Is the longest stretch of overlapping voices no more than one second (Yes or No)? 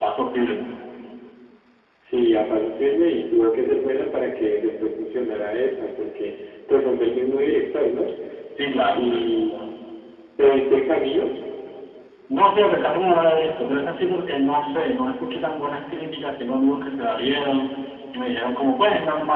Yes